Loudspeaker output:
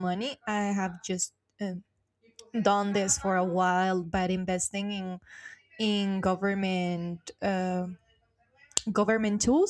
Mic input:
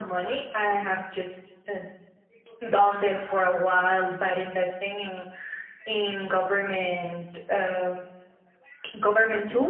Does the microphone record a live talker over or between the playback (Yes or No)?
No